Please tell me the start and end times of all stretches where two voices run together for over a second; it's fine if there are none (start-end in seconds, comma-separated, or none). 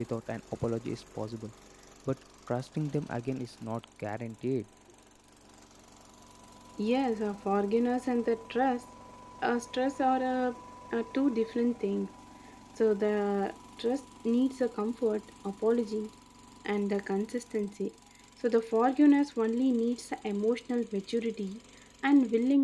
none